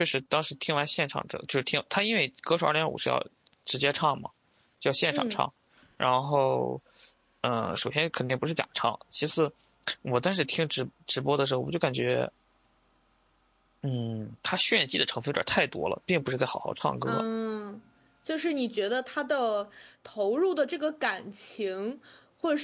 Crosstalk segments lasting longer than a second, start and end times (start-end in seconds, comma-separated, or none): none